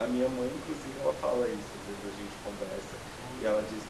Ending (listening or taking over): listening